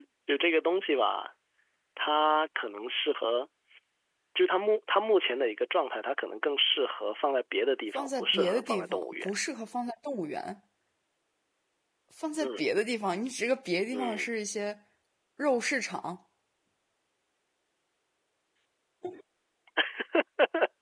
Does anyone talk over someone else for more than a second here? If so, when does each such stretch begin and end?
7.9-9.3

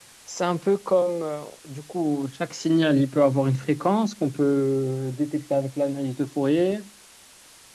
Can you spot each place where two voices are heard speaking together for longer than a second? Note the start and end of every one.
none

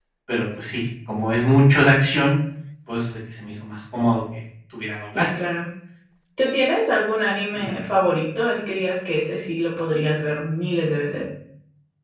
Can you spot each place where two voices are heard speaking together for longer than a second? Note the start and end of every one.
none

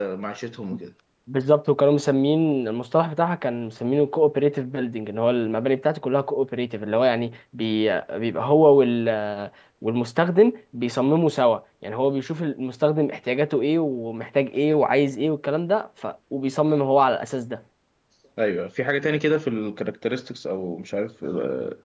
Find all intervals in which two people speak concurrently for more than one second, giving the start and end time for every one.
none

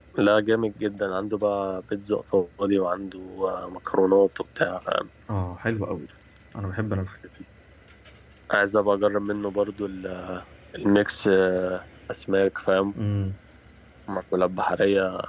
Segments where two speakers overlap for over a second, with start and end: none

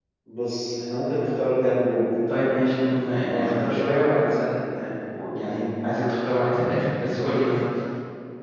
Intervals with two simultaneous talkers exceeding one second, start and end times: 3.2-4.5

